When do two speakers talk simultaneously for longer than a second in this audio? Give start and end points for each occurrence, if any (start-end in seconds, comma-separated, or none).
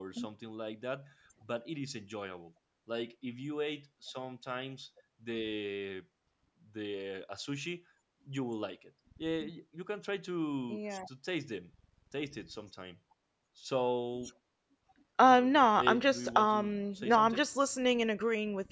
15.3-17.4